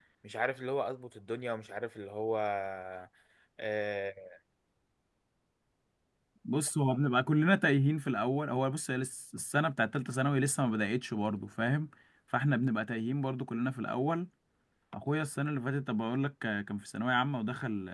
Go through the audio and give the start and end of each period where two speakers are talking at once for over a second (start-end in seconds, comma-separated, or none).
none